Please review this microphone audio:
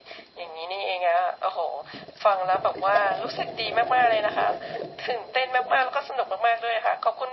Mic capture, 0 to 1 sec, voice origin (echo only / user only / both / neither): echo only